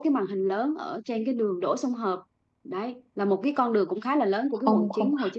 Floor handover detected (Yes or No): Yes